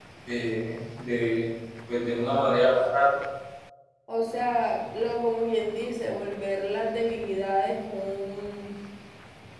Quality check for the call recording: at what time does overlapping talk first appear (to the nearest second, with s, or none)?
none